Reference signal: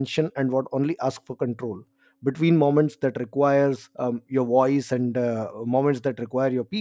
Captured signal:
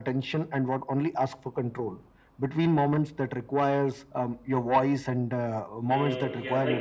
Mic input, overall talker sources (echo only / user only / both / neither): both